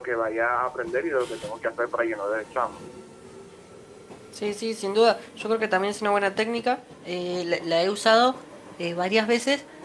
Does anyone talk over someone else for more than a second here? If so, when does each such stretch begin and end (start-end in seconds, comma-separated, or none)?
none